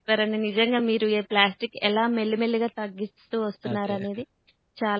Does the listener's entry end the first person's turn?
No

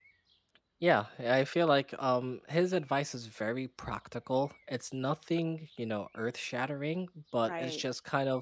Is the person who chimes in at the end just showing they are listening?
Yes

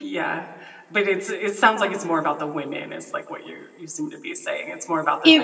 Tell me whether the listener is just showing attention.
No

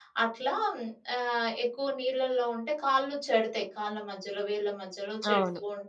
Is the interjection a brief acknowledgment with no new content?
Yes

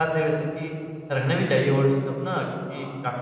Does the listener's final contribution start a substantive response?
No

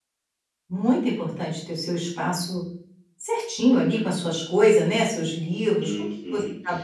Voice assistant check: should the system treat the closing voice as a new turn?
Yes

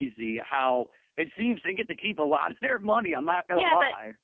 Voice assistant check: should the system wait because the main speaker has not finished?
No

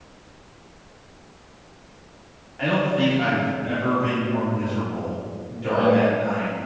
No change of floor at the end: Yes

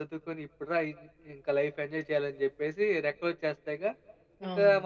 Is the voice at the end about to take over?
No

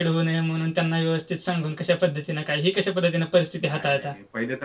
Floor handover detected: Yes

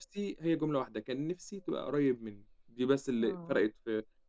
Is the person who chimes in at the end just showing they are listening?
Yes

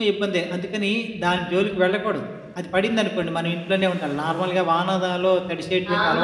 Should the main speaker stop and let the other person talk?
Yes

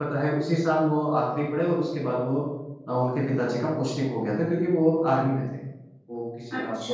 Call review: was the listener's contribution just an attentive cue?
Yes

